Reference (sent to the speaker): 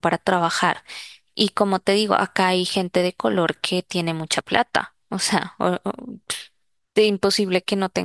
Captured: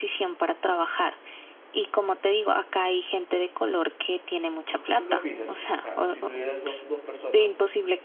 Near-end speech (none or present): present